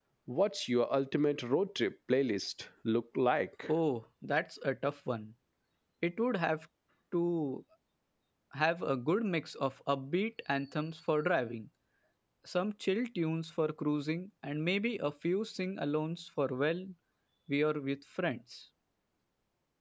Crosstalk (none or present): none